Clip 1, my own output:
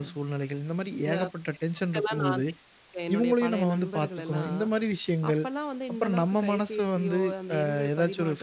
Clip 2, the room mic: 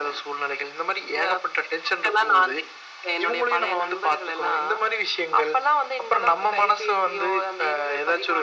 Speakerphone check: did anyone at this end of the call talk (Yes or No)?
No